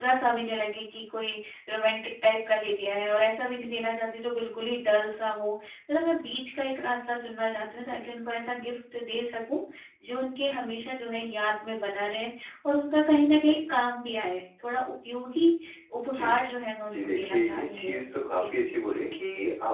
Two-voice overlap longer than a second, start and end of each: 16.9-18.4

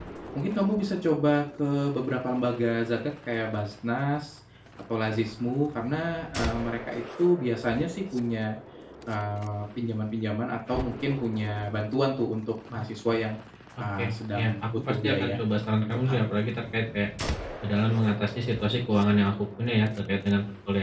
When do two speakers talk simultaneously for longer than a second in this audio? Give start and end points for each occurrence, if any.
14.0-15.4

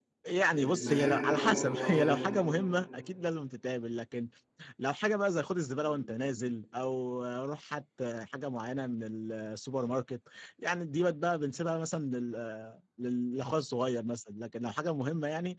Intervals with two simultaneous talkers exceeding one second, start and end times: 0.5-2.2

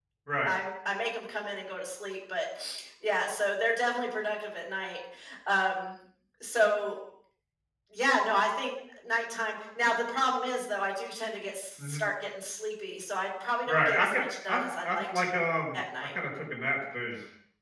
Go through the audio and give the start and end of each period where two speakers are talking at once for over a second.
13.7-15.3

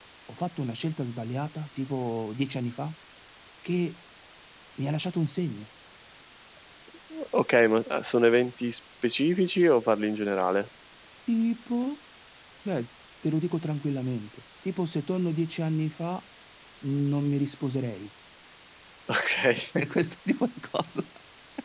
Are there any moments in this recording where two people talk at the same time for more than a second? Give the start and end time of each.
none

